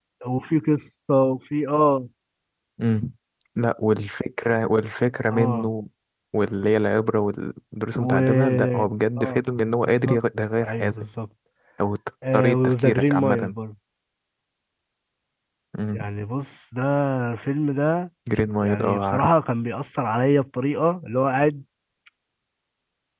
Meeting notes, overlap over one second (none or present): present